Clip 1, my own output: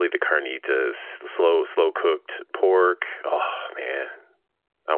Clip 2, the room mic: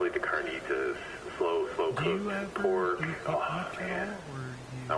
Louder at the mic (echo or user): echo